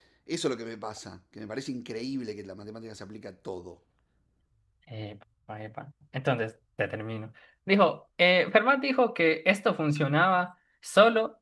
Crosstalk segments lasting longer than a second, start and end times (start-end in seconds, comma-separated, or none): none